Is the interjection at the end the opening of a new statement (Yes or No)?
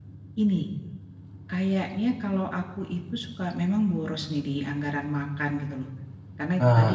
No